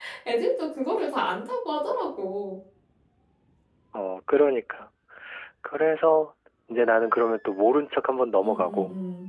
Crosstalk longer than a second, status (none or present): none